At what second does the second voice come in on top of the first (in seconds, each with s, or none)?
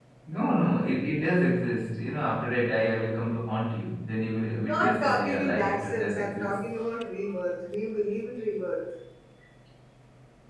4.6 s